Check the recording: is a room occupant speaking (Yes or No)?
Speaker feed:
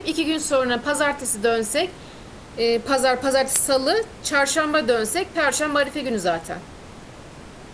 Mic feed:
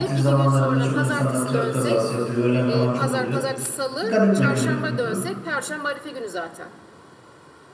Yes